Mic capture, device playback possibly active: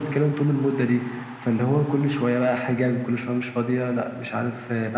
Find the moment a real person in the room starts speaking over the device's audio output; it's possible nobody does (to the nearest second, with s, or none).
none